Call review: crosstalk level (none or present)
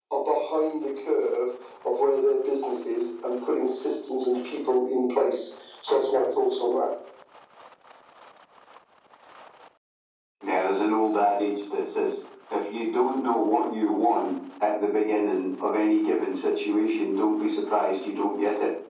none